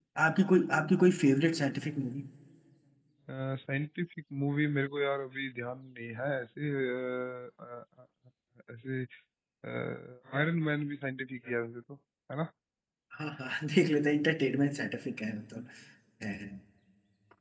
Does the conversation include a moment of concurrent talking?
No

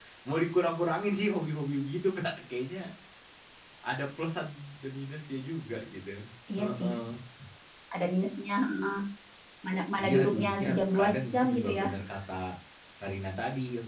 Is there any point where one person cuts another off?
Yes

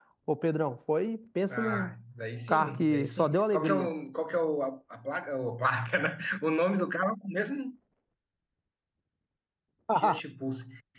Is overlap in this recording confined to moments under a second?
No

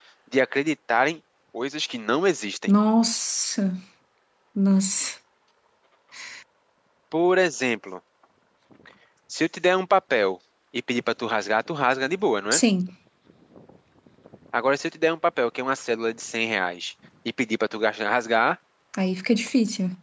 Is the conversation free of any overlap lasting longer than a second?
Yes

